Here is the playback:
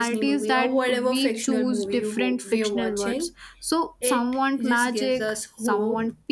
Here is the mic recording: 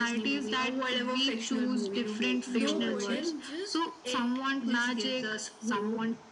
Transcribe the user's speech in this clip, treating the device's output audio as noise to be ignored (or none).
no boredom, just